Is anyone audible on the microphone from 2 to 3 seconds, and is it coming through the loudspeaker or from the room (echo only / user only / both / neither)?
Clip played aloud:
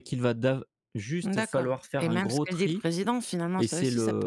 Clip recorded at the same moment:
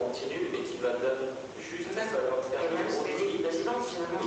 echo only